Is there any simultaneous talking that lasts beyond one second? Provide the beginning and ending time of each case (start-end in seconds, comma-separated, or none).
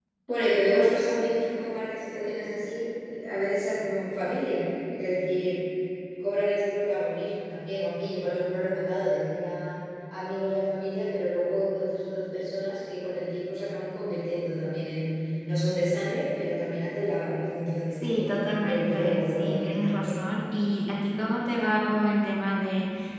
18.0-20.2